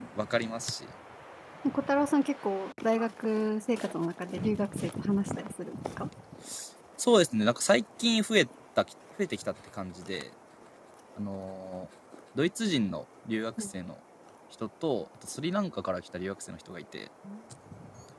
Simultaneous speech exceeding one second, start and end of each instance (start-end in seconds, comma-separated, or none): none